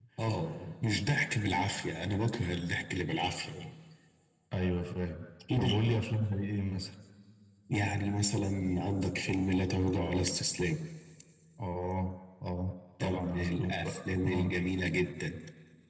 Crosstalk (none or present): present